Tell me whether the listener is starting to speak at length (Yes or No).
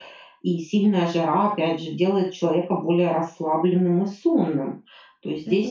No